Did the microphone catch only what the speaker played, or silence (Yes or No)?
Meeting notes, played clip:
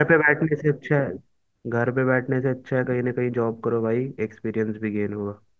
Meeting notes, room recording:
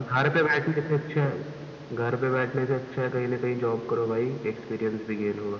Yes